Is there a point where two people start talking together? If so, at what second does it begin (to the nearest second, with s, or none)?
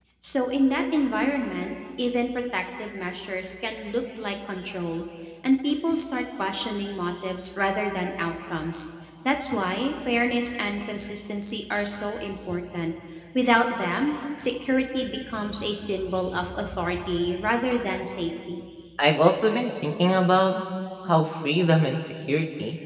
none